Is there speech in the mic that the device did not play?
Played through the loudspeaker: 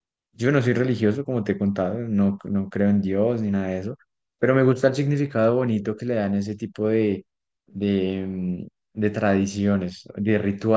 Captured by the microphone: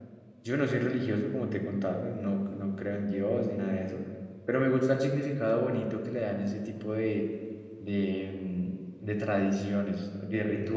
No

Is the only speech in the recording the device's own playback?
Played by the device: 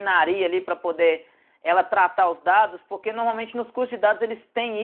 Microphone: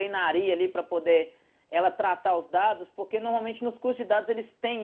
Yes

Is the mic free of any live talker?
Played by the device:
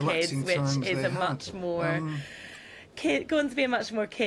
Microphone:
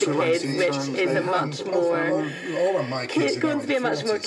No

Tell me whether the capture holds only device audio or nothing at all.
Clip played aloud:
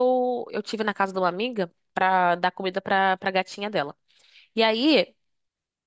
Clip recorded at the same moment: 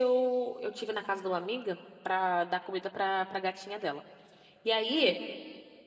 Yes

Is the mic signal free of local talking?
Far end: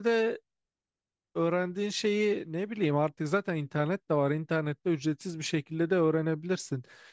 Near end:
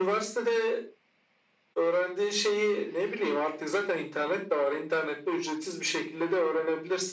Yes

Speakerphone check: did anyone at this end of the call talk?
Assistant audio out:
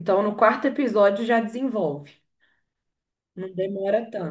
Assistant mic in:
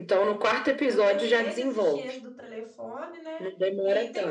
Yes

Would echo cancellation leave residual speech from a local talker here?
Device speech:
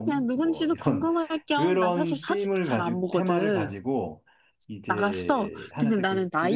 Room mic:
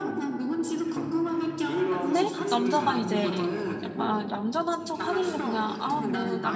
Yes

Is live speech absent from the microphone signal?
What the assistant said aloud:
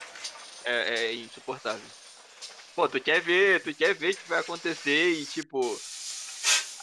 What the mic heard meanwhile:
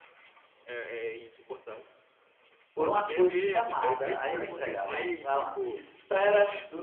No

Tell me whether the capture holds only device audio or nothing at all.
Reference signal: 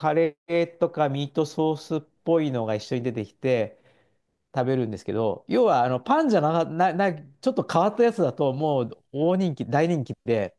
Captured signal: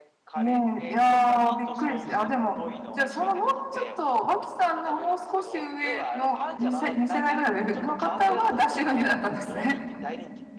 No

